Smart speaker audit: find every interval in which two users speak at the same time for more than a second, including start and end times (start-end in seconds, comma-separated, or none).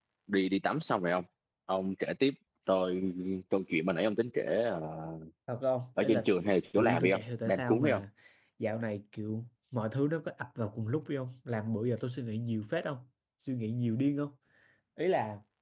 6.8-8.0